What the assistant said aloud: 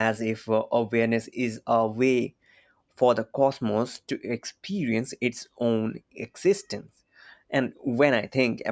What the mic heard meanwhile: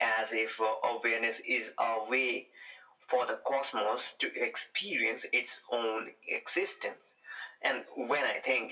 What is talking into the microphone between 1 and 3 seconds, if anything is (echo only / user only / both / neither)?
echo only